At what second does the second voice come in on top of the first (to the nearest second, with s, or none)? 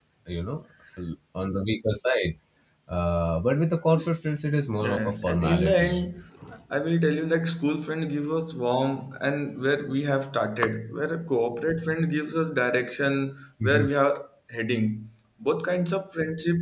5 s